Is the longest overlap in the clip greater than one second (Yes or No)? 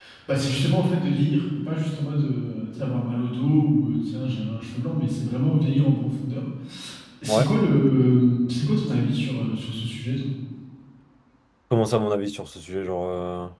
No